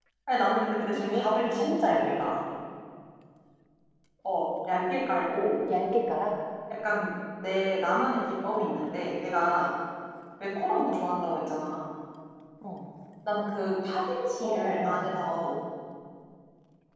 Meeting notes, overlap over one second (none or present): present